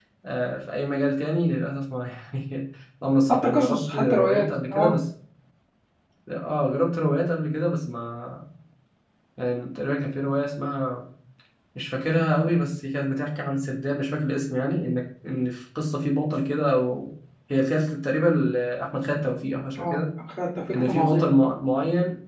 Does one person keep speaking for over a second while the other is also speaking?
Yes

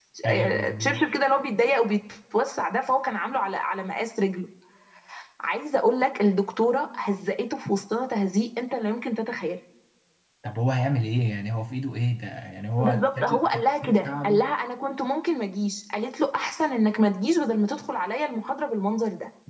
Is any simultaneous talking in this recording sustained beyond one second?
Yes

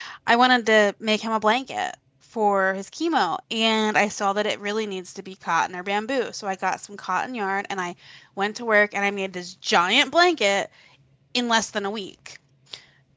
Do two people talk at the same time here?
No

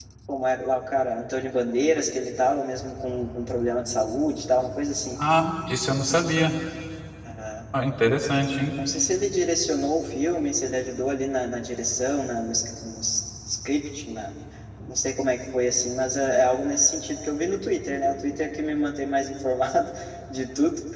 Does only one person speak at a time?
Yes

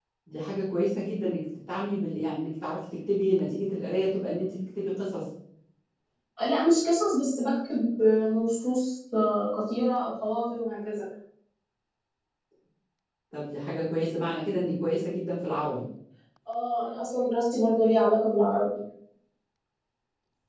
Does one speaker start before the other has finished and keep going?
No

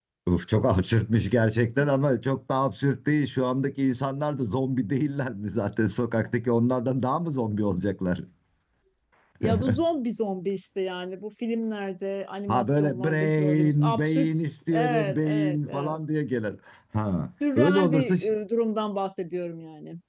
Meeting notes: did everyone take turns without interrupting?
No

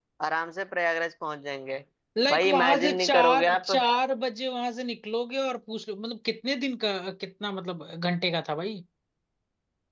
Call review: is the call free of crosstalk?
No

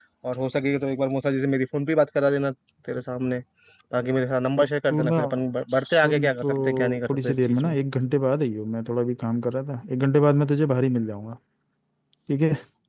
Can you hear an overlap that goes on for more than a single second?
Yes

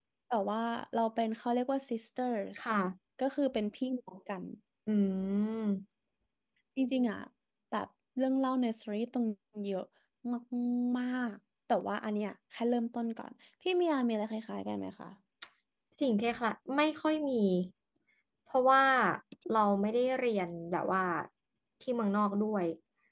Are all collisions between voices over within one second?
Yes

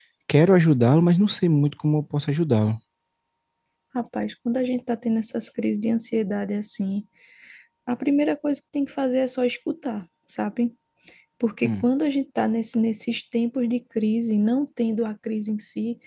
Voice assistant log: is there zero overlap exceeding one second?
Yes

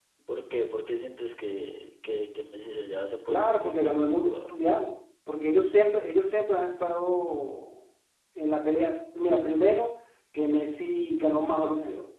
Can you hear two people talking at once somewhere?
Yes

